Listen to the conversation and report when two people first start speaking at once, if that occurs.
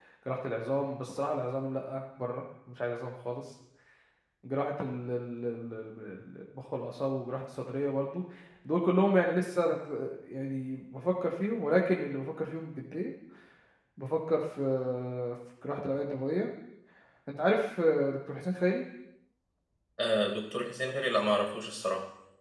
none

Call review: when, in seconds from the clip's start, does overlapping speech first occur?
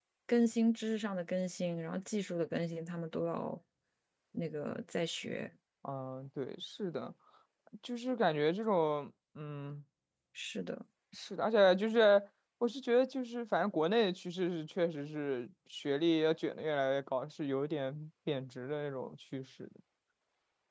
none

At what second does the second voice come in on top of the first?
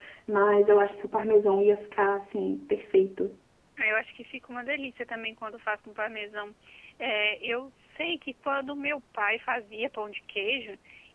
none

